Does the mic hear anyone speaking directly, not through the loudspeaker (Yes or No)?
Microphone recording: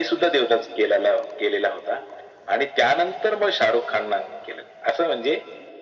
No